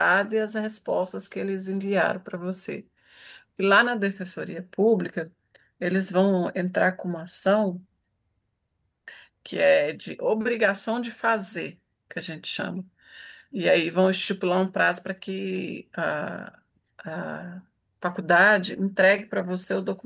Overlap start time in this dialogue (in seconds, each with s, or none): none